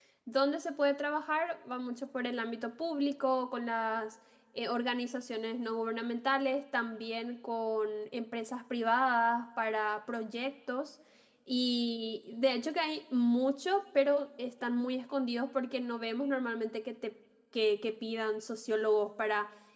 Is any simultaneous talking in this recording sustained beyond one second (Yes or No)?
No